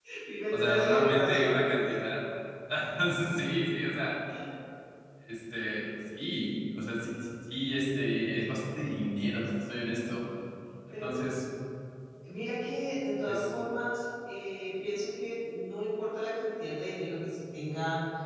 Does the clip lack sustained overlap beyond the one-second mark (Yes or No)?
No